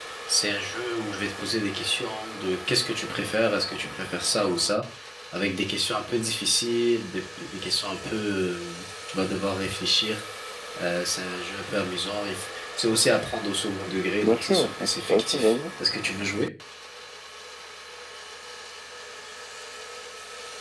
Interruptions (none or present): present